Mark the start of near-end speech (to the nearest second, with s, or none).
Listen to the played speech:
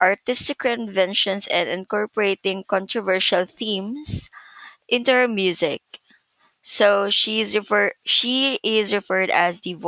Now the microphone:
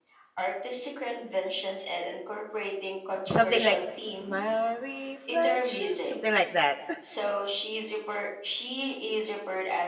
3 s